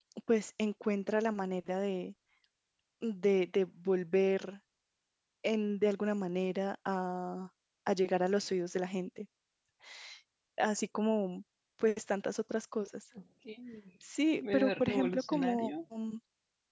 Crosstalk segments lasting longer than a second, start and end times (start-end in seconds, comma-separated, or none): 14.4-15.7